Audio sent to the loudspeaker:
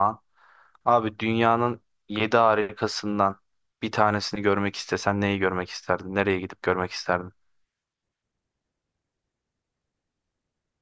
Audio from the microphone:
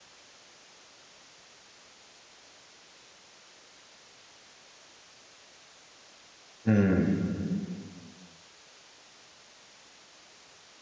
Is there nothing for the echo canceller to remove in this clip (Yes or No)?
Yes